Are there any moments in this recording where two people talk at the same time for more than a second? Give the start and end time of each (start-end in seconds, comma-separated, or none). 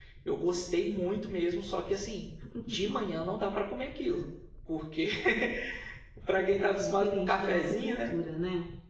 6.3-8.1